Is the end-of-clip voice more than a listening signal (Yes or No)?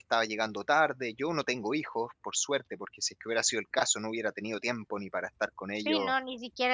Yes